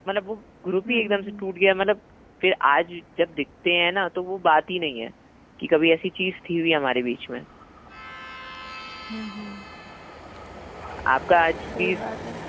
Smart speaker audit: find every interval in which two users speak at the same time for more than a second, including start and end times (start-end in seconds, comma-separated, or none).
none